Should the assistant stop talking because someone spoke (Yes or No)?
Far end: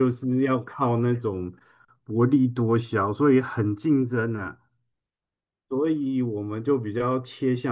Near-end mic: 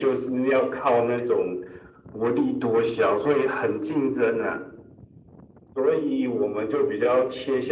No